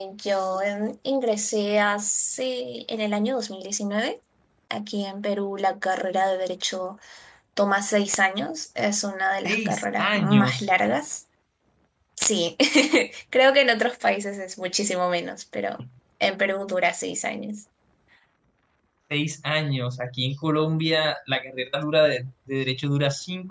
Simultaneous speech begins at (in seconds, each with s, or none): 9.4 s